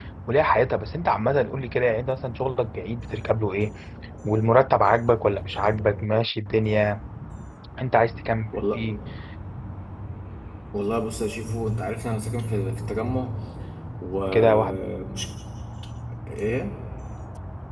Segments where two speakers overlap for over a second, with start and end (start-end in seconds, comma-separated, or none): none